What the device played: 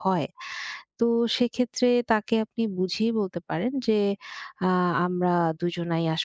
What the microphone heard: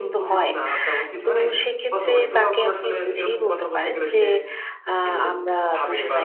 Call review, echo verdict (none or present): present